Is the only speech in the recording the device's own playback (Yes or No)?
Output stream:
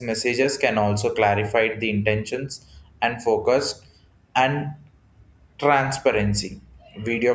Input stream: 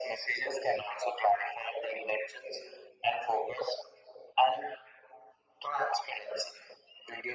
Yes